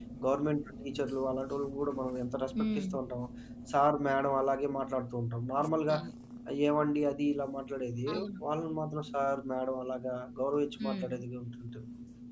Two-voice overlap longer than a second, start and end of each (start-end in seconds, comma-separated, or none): none